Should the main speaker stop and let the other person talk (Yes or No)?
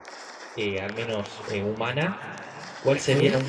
No